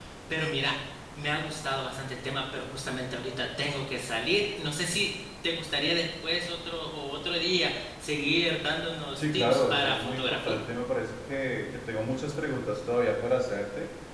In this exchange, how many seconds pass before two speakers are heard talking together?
9 s

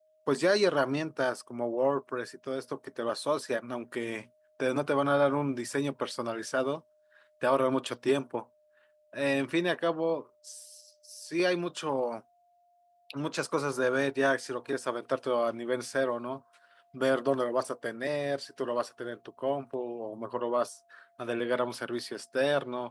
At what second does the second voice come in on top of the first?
none

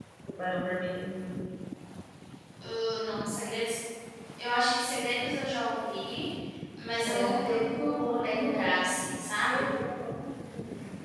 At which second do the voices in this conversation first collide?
7 s

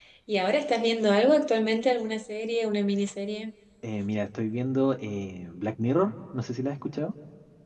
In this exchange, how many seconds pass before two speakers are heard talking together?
none

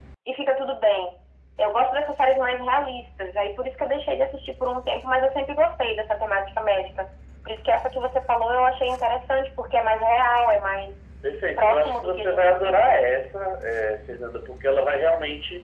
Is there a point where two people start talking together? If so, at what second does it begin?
12 s

